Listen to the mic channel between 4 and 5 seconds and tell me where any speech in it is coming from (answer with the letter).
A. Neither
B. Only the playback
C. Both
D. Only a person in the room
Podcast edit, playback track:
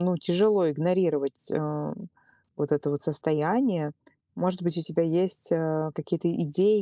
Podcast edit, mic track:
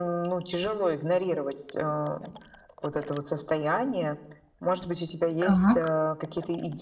B